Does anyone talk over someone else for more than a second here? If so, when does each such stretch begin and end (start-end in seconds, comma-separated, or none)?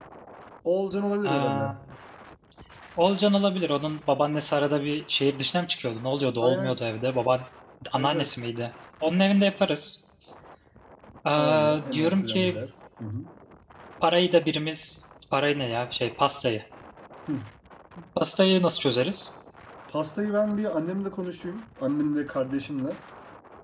11.4-12.6